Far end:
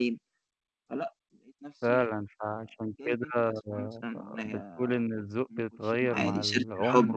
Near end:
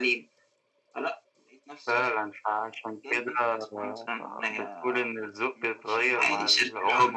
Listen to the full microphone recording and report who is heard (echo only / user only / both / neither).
echo only